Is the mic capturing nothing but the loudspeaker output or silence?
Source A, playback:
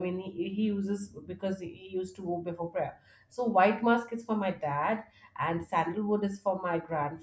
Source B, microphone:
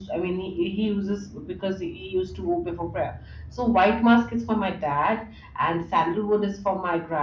Yes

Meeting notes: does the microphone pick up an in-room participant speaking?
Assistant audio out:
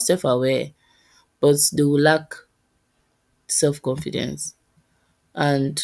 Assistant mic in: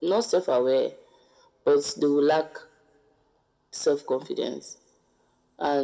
No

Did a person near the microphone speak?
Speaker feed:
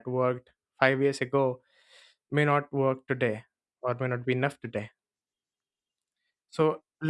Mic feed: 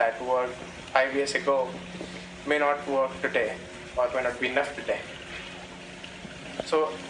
No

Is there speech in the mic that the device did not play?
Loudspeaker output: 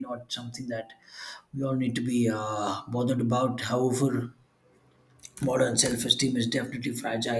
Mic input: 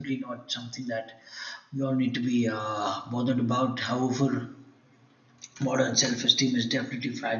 No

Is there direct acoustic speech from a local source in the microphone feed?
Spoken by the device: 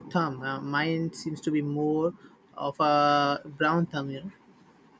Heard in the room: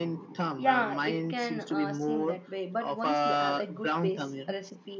Yes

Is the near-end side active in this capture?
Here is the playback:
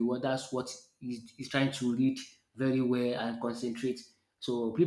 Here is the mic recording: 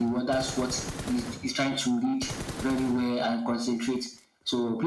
No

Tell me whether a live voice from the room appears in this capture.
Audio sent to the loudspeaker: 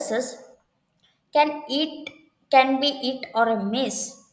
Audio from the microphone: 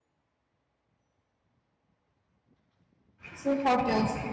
Yes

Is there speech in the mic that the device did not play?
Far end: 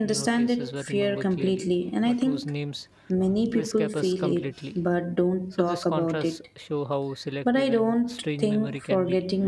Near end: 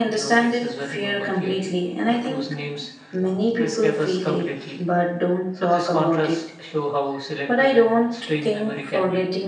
No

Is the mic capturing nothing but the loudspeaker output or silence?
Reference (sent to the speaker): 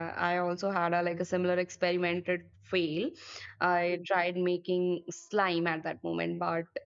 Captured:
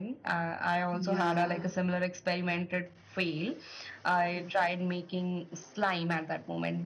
No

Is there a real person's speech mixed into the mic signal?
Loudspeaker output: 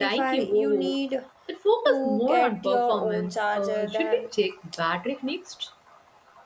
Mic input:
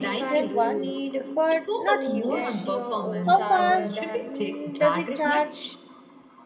Yes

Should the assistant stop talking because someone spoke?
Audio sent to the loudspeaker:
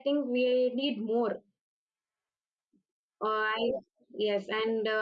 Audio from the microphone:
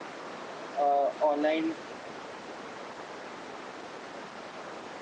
Yes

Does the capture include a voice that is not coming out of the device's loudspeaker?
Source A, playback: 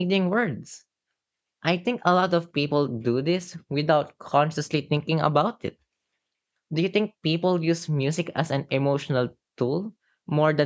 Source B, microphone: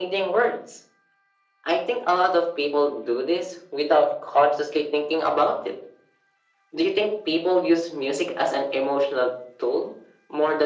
No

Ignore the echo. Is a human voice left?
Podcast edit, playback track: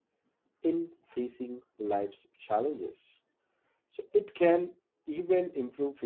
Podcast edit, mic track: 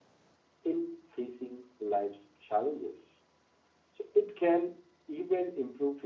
No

